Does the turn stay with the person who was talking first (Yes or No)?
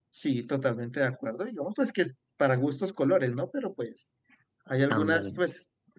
Yes